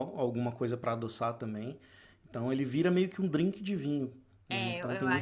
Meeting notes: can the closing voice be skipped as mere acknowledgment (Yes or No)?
No